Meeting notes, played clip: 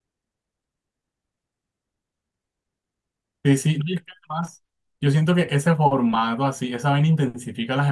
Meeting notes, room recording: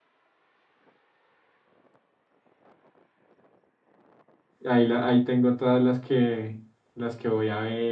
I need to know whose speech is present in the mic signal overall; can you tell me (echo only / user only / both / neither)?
user only